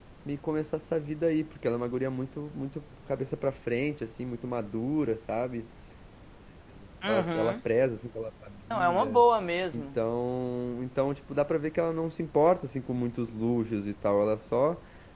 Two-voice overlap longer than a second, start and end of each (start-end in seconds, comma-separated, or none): none